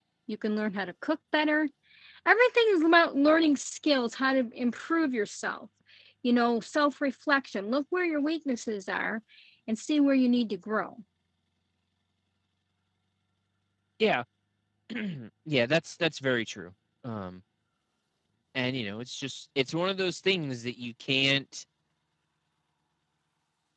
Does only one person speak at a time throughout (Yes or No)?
Yes